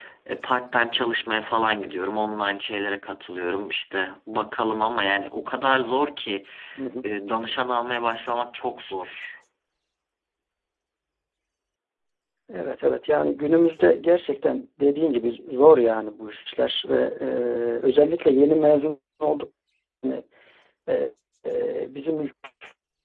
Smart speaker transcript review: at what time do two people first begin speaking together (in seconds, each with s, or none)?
none